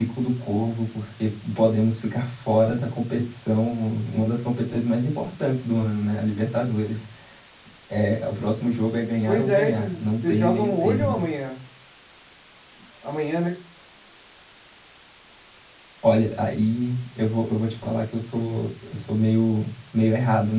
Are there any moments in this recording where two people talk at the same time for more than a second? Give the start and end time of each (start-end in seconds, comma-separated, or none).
9.3-11.1